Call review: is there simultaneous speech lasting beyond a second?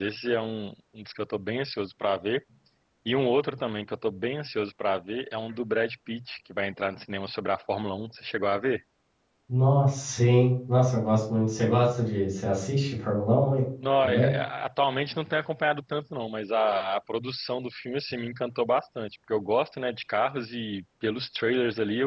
No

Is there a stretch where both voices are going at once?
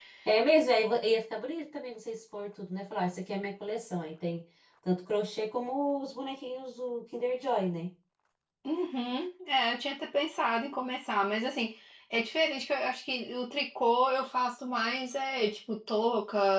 No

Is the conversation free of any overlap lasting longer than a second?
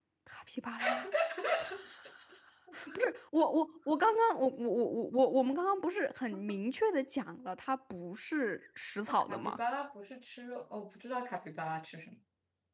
Yes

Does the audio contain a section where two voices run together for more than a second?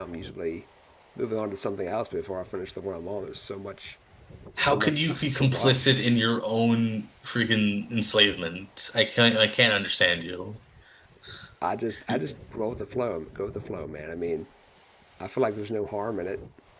Yes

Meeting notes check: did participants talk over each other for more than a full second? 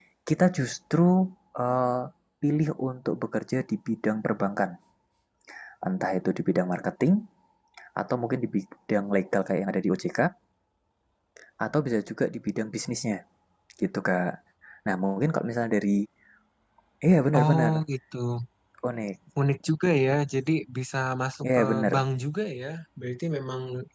No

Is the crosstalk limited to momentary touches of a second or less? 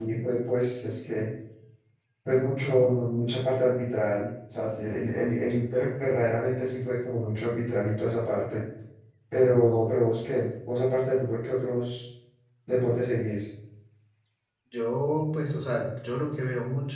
Yes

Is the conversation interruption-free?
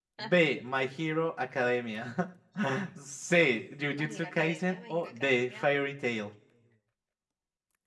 No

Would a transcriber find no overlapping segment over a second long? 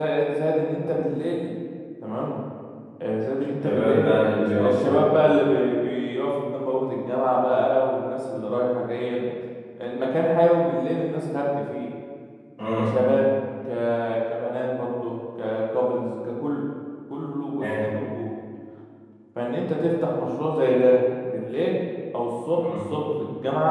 No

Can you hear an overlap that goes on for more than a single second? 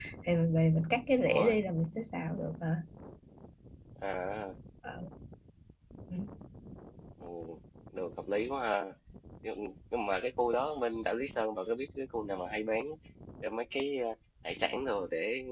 No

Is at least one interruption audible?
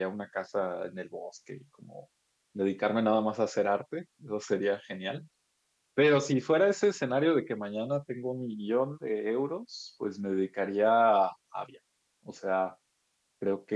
No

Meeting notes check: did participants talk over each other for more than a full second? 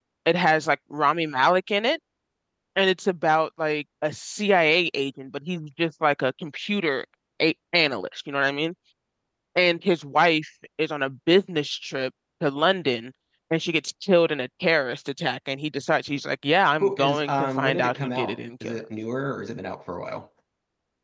Yes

